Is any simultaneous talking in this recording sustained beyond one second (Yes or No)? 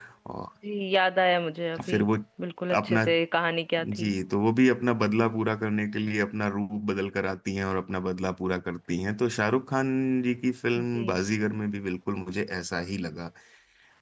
No